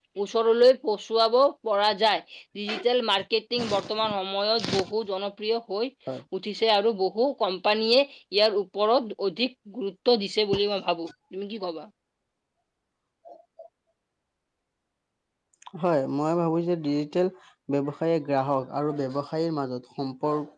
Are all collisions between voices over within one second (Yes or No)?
Yes